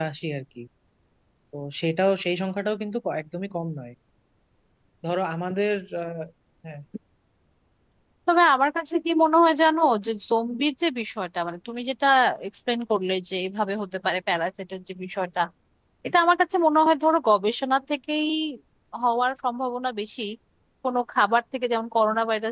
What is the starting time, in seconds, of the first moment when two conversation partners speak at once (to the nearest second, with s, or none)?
none